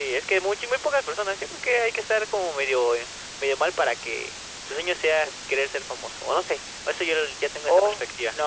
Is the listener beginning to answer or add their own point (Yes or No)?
Yes